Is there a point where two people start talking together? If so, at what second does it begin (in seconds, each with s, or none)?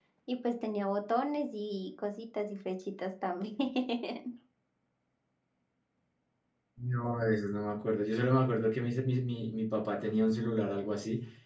none